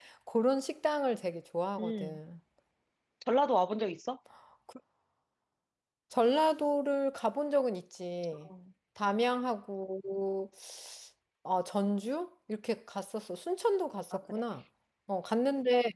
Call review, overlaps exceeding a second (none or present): none